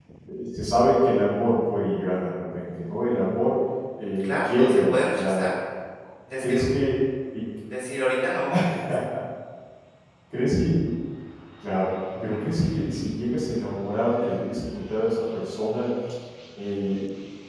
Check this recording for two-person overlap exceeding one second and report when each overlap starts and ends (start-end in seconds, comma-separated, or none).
4.2-5.5